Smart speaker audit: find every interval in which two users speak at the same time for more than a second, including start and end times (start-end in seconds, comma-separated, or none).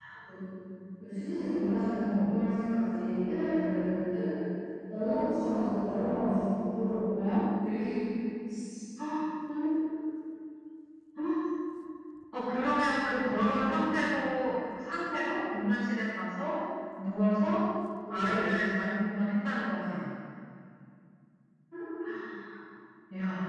none